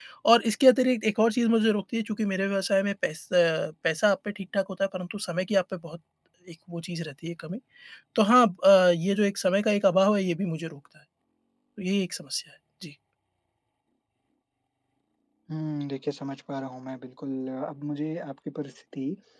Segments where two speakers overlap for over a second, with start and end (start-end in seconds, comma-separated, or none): none